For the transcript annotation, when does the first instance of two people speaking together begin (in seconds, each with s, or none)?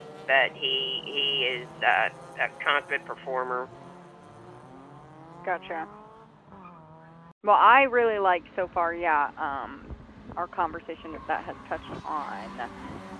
none